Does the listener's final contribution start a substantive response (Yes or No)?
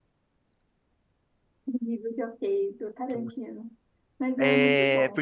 Yes